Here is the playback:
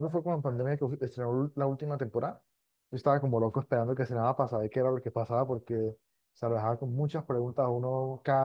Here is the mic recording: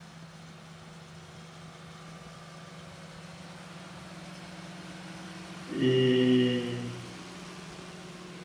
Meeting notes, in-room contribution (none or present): present